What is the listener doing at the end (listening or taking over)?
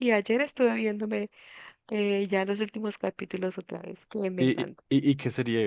taking over